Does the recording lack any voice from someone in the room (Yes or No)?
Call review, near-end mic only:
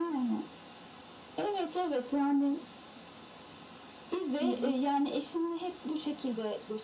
No